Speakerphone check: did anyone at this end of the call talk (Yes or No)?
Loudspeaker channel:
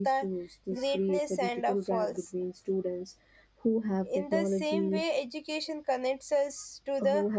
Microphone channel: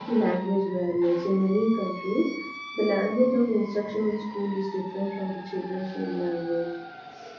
Yes